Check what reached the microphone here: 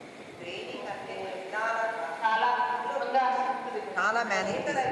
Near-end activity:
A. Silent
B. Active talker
B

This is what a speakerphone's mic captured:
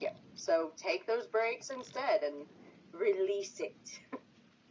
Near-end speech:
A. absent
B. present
A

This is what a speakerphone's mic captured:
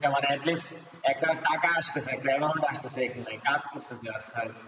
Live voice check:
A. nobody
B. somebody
A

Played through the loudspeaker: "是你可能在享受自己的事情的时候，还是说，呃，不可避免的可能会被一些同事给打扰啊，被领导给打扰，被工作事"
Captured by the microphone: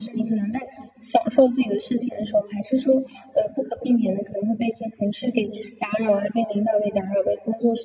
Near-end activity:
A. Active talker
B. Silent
B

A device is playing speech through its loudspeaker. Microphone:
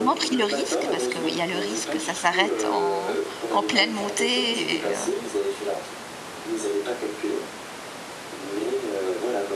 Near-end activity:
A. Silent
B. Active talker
B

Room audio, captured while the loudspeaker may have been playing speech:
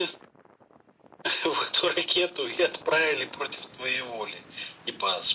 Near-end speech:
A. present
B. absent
B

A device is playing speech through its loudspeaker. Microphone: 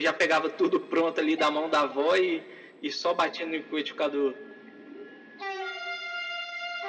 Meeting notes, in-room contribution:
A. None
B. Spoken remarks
A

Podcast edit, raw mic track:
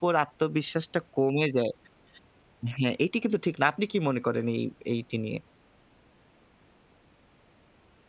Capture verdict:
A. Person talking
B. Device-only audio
A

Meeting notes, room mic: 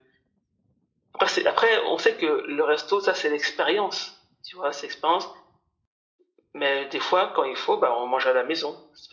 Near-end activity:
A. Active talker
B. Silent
B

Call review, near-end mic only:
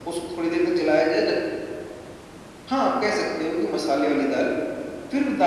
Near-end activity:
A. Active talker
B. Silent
B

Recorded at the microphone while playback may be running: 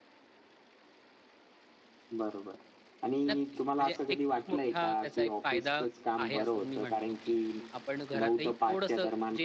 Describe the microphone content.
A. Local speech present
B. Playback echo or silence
A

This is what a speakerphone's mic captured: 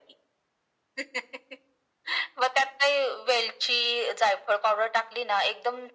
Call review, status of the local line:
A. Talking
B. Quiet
B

